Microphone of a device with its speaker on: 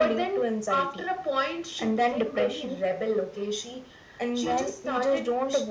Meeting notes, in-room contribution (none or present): none